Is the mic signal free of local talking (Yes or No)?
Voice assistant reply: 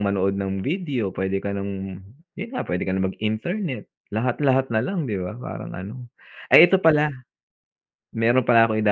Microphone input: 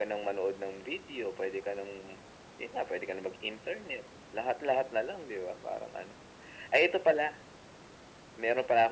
Yes